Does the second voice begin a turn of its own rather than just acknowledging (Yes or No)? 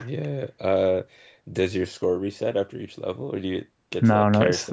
Yes